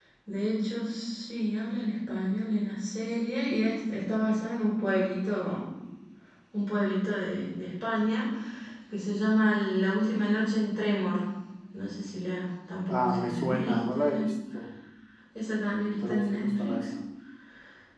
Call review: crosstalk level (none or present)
present